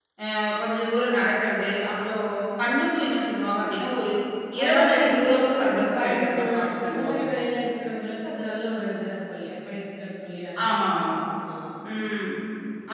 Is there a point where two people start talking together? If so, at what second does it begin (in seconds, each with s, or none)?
4.6 s